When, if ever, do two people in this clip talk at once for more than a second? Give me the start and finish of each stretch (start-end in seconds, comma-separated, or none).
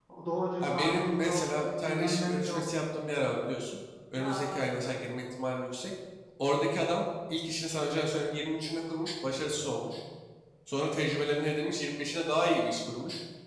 0.6-2.6